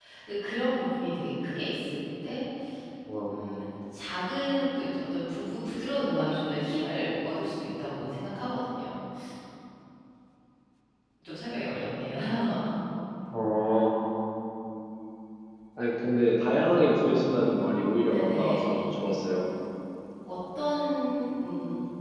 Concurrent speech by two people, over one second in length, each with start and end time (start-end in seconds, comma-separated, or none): 17.2-18.8